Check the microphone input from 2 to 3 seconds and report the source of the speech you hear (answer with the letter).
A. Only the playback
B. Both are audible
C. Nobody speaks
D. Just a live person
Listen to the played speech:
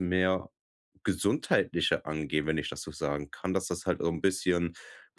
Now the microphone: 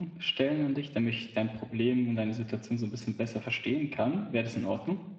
D